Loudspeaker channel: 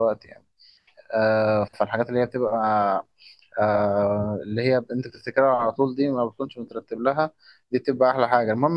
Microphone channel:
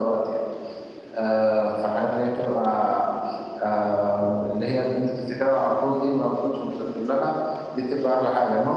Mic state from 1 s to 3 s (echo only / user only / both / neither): echo only